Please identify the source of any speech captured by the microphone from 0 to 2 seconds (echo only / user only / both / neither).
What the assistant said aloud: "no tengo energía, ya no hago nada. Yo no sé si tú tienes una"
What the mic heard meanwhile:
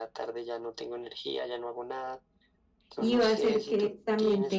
echo only